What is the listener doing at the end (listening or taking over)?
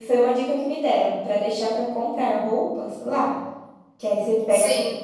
listening